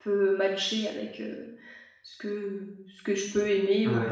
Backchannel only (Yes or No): Yes